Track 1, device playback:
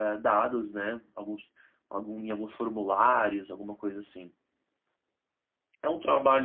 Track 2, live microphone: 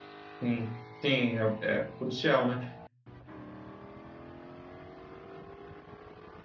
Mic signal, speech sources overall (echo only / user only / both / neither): user only